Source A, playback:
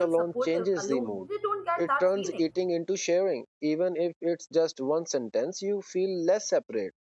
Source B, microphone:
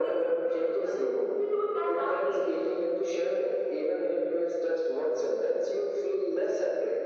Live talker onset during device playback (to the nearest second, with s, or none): none